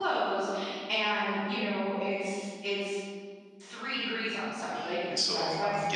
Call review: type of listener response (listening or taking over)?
taking over